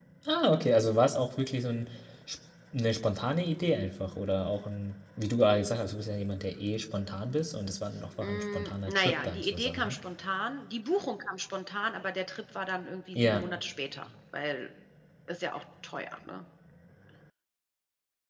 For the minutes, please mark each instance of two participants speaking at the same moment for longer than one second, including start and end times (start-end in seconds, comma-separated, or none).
8.2-10.0